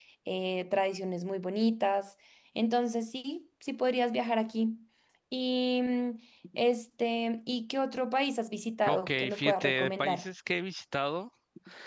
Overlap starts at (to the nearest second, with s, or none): 9 s